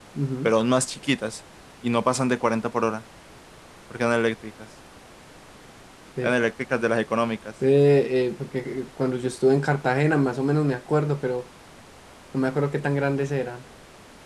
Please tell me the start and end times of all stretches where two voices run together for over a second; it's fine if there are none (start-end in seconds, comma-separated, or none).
none